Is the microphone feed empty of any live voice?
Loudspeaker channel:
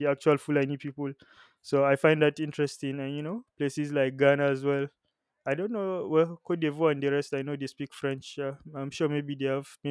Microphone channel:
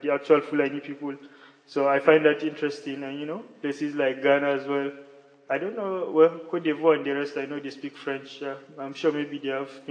Yes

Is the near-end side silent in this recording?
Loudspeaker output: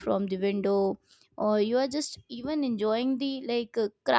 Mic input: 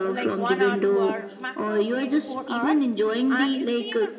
No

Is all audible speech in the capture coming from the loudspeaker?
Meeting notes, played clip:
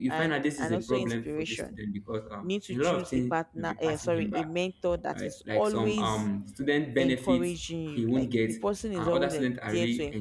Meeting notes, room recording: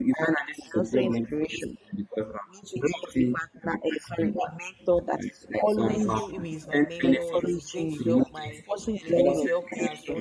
No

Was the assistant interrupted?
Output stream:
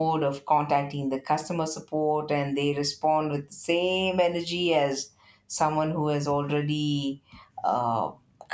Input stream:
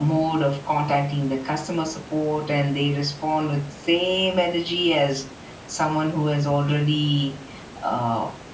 No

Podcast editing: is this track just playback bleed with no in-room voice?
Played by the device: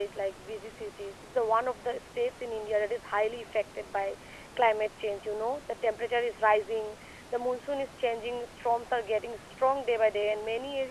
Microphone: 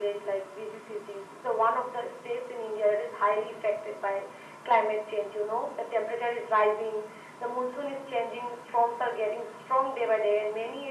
Yes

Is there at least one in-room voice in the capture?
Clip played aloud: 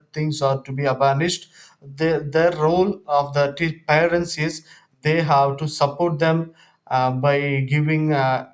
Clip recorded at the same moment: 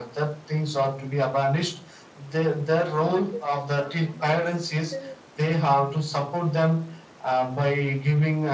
Yes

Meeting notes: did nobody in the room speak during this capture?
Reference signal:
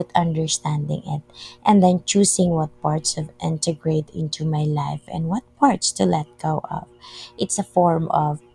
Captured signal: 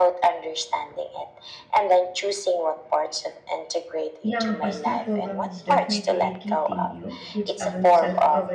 No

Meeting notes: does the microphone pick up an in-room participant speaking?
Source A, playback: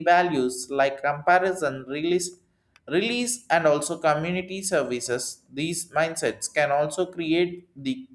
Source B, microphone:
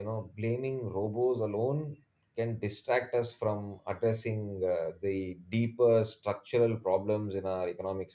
Yes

